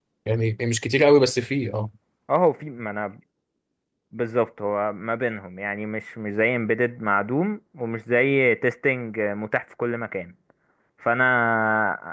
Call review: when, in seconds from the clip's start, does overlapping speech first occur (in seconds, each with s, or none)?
none